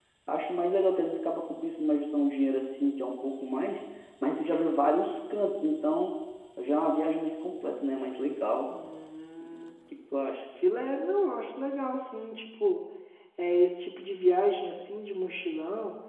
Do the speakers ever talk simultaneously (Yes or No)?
No